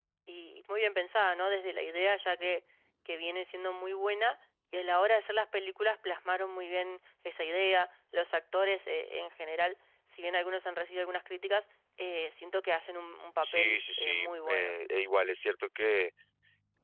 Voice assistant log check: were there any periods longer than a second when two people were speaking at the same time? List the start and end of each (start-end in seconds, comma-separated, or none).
13.4-14.7